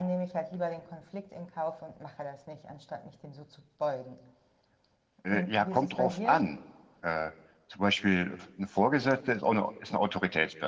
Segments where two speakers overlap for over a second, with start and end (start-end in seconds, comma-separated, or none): 5.3-6.5